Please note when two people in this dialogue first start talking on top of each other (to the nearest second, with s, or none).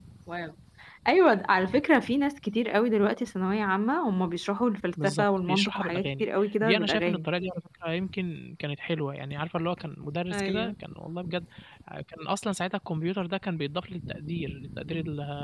5 s